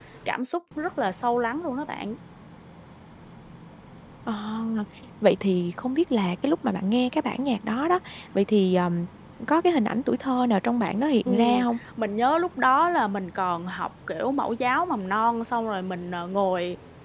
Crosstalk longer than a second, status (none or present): none